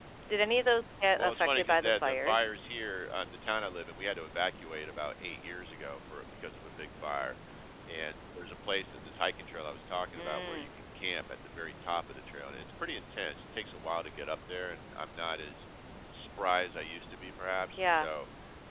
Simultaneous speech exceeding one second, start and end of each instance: 1.2-2.5

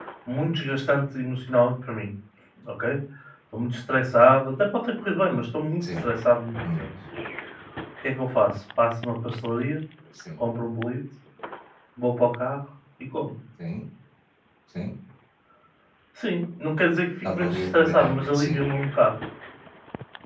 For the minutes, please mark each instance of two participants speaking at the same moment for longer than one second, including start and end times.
17.3-18.7

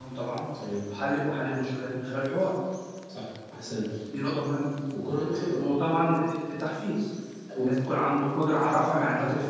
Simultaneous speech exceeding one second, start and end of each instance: none

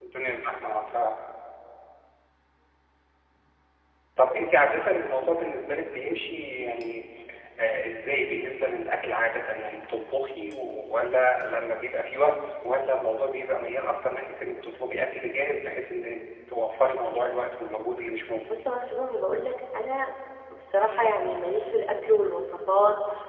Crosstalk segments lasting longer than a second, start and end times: none

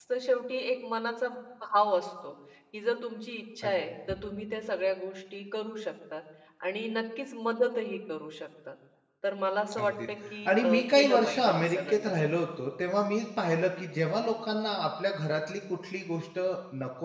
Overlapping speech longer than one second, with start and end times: 10.5-12.4

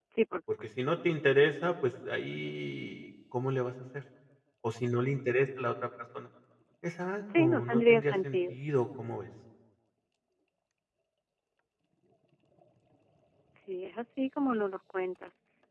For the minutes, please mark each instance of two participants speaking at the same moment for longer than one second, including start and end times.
7.4-8.6

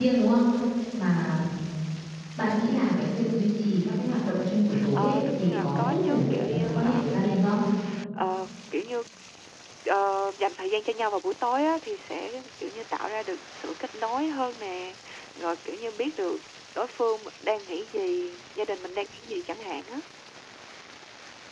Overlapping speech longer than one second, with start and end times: 4.9-7.0

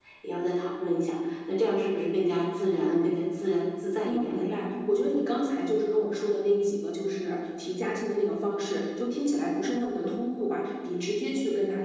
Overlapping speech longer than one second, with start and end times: none

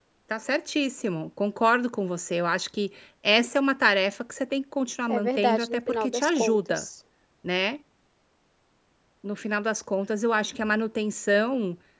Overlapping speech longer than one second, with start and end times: 5.1-6.8

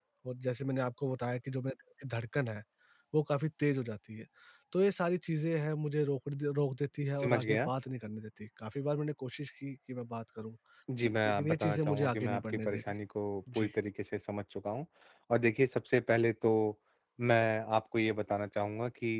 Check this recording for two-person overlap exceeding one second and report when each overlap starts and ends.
11.1-12.9

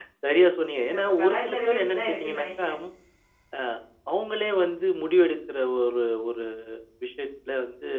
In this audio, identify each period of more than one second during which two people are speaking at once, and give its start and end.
0.9-2.7

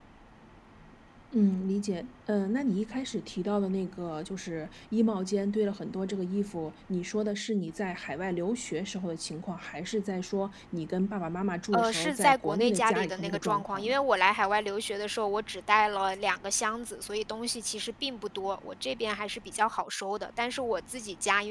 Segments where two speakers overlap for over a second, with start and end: 11.7-13.9

